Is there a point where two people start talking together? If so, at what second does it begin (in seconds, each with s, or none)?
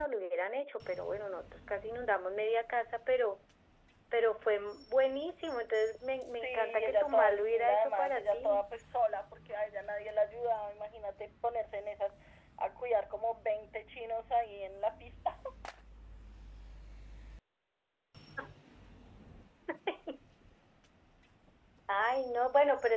6.3 s